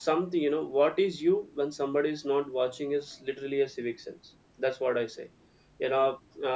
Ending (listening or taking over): listening